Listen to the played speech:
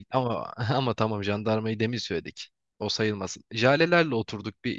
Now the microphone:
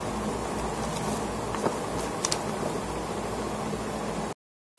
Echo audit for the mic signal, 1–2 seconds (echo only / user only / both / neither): neither